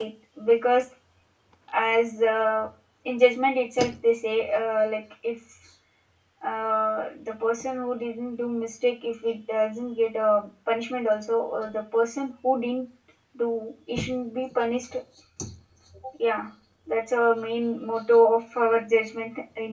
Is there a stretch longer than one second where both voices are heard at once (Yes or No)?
No